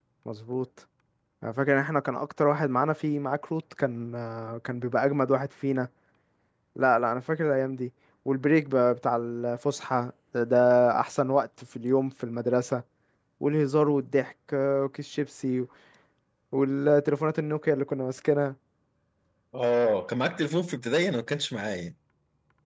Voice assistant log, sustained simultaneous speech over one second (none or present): none